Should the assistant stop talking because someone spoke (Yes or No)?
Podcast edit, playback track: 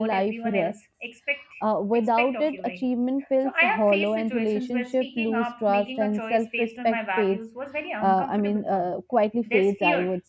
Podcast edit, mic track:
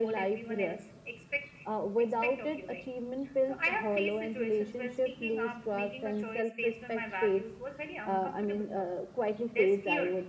No